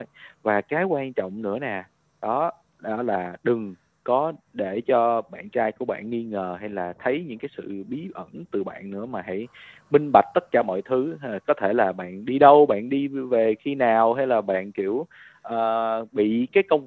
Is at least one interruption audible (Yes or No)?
No